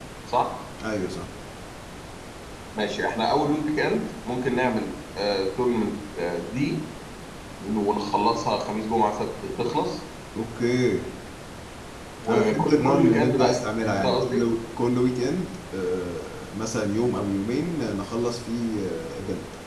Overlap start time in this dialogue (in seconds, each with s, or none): 12.3 s